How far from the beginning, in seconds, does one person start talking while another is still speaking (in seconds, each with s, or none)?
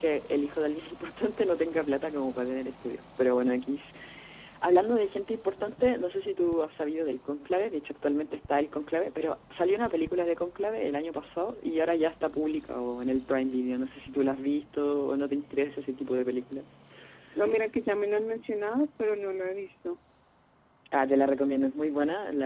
none